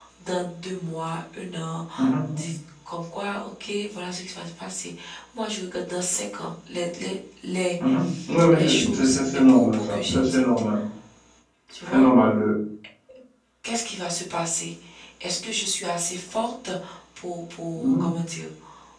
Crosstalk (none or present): present